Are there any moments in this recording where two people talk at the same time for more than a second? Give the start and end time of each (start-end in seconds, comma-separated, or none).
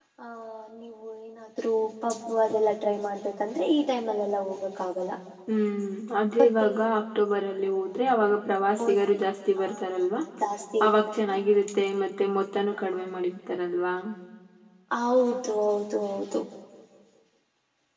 none